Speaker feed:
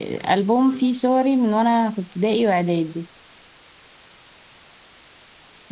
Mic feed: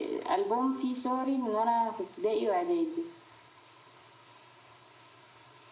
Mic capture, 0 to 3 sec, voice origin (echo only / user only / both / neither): echo only